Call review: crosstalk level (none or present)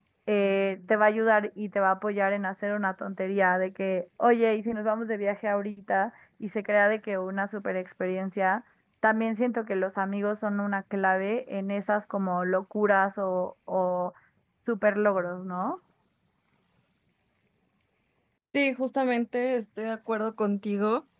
none